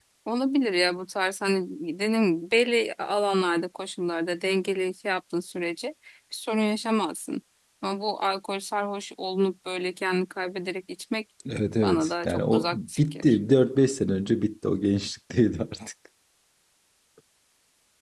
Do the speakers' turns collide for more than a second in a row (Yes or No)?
Yes